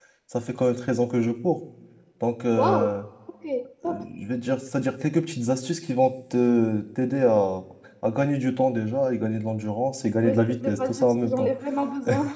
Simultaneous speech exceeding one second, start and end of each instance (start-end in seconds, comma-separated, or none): 10.2-11.5